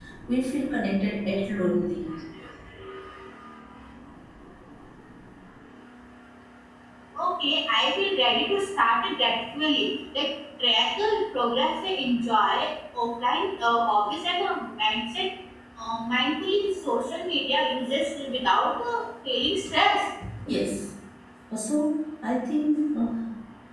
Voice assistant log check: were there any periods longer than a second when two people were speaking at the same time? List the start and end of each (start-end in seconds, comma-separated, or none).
none